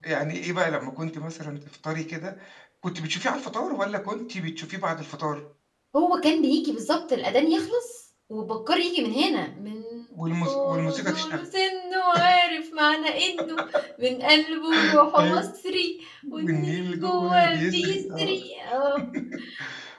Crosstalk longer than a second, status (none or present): present